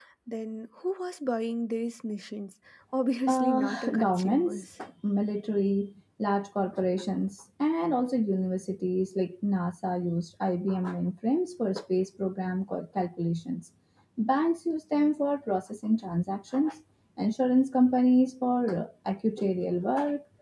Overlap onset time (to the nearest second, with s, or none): 3 s